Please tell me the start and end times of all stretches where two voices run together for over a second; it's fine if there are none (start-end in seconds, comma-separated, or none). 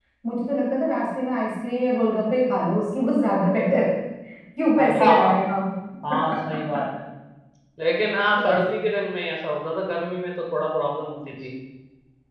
none